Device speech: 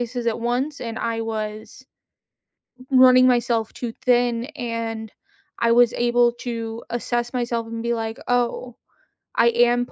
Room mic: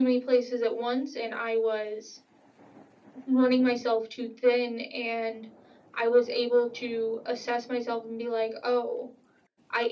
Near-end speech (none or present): none